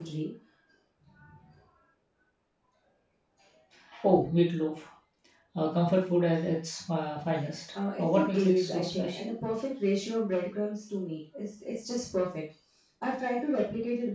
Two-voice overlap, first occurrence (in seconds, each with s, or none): 7.8 s